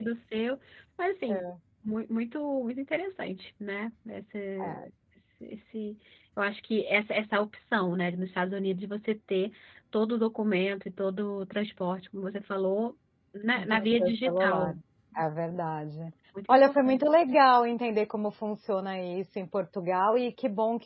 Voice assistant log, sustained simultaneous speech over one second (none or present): present